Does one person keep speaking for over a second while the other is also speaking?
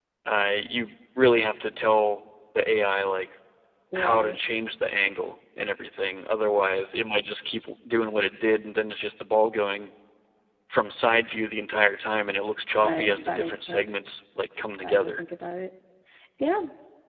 Yes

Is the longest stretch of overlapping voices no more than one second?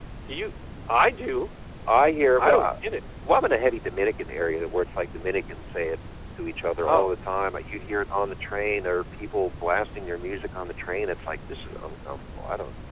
Yes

